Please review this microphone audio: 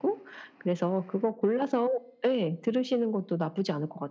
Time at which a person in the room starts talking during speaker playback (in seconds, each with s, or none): none